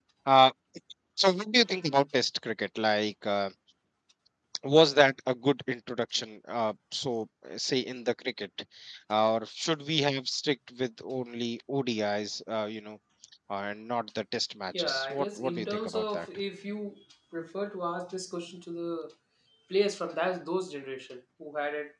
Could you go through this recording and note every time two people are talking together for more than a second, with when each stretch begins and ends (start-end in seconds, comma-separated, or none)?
14.8-16.3